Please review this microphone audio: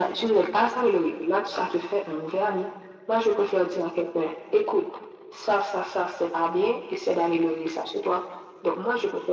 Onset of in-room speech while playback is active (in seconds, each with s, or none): none